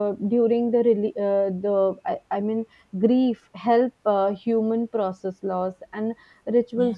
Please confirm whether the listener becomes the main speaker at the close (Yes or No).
No